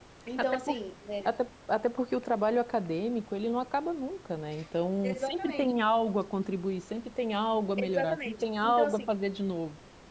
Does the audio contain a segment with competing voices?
Yes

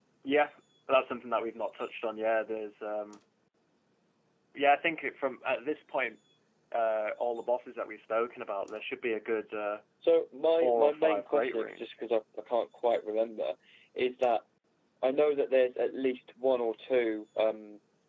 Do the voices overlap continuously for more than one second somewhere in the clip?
Yes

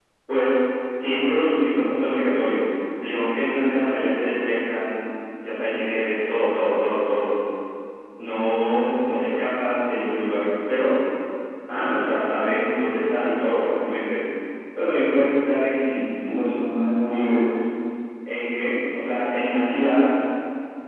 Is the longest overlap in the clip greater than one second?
No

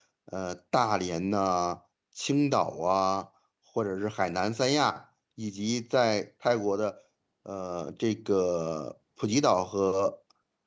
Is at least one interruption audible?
No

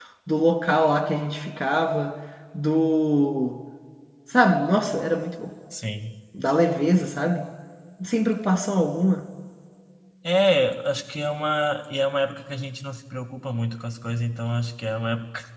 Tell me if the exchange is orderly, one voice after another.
Yes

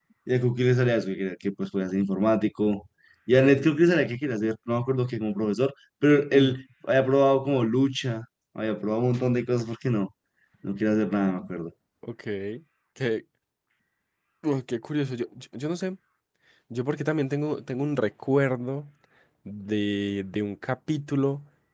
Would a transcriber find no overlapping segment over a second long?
Yes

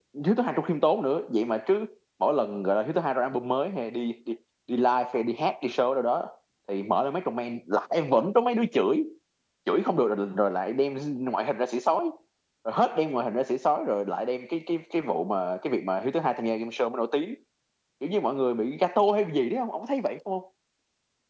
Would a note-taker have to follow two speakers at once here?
No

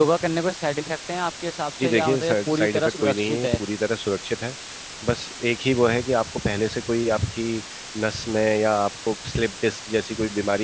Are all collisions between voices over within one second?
No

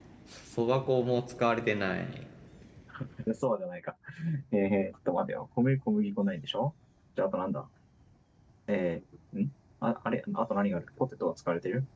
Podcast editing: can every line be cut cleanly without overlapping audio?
Yes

